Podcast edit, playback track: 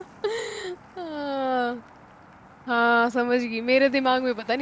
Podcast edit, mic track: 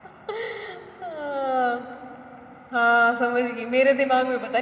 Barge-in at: none

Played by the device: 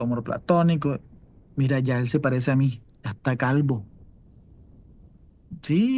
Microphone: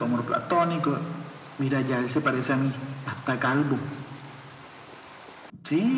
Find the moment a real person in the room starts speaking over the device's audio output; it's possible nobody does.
none

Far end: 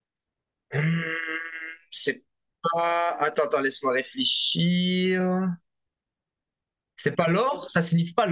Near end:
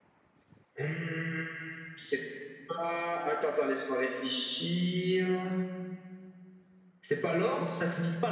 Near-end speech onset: none

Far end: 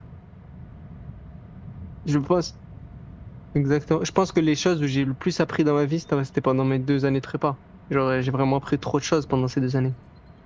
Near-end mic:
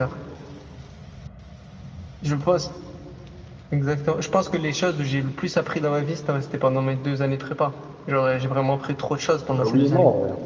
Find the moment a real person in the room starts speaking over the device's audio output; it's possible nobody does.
10 s

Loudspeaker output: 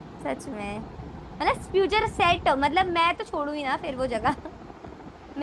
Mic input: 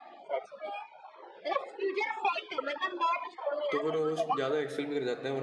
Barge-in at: 4 s

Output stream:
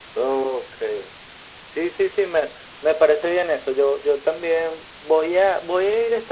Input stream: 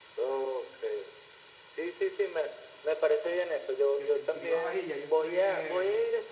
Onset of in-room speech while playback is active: 4 s

